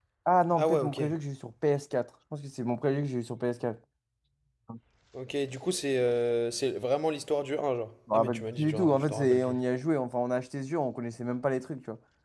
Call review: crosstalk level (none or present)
present